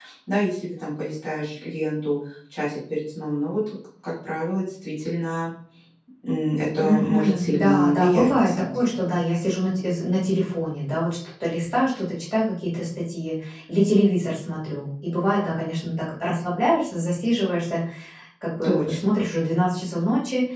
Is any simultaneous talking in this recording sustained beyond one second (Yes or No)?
Yes